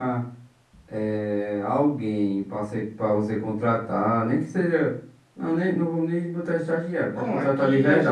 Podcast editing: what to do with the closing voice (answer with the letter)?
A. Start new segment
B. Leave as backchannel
A